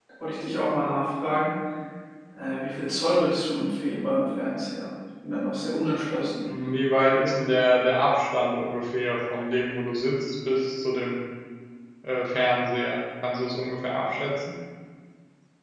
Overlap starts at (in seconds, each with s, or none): none